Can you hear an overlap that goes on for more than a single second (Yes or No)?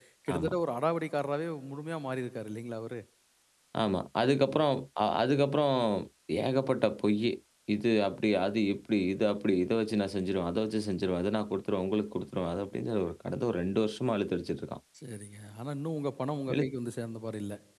No